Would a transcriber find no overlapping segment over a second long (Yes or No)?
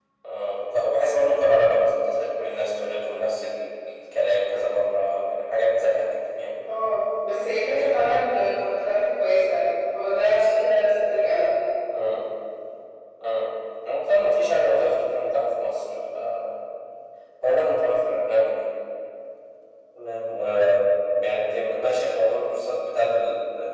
Yes